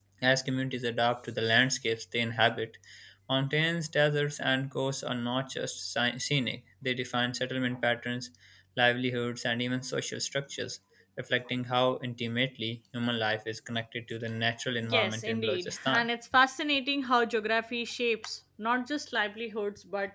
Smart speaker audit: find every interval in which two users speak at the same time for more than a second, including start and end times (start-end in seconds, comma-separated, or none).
14.9-16.1